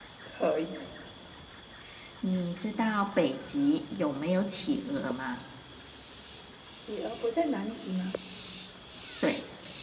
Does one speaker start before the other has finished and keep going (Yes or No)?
No